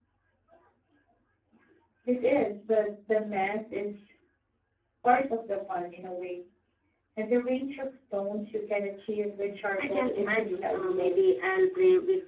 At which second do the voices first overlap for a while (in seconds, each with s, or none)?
9.8 s